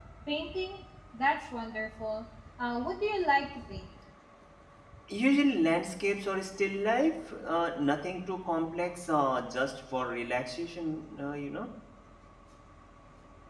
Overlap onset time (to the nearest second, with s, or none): none